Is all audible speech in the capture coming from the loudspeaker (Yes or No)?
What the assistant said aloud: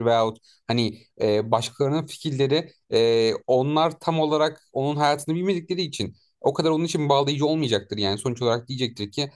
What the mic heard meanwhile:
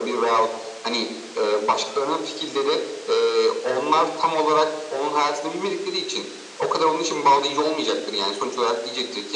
Yes